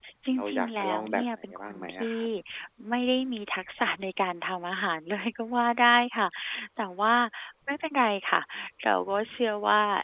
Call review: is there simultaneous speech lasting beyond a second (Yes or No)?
Yes